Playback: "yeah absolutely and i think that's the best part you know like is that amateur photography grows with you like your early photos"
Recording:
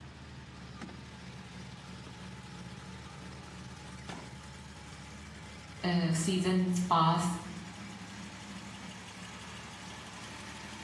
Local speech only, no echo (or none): uh, seasons pass